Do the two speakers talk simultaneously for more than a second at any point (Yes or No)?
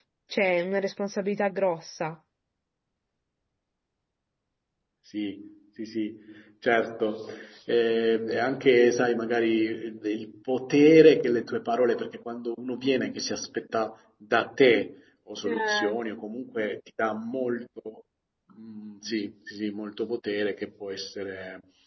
No